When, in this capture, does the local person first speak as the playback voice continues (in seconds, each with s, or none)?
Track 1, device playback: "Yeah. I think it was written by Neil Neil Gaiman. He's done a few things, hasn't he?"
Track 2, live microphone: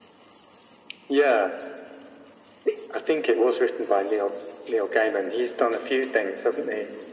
none